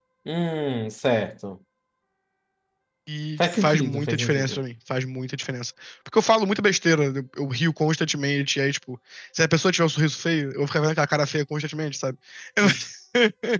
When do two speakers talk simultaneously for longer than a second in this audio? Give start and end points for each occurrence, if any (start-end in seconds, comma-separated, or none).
3.4-4.6